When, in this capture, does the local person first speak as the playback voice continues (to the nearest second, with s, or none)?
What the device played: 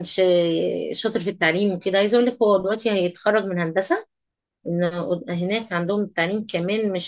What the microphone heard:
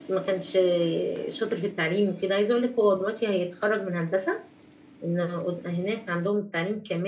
none